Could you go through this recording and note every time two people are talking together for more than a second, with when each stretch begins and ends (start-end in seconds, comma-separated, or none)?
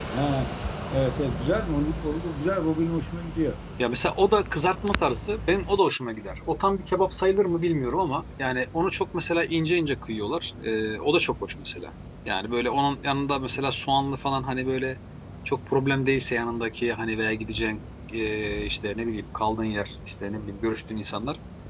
none